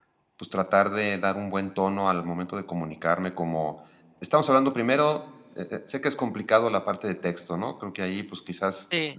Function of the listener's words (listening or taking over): listening